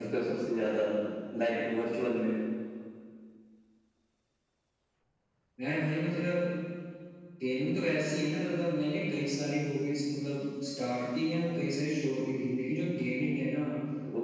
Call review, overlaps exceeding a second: none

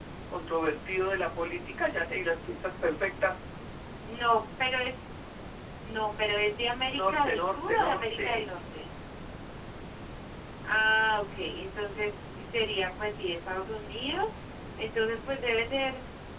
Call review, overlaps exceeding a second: present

